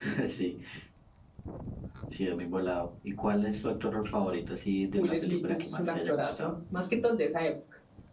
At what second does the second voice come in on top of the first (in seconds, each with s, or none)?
5.0 s